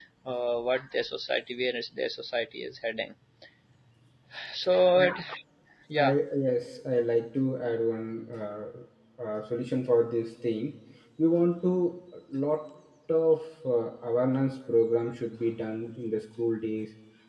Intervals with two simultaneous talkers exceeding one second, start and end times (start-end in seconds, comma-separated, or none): none